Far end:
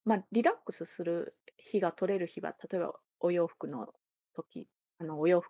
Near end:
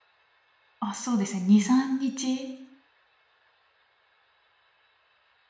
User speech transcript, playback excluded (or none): あ、そうですね、2、3日